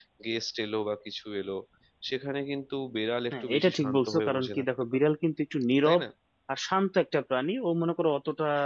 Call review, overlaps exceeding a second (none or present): present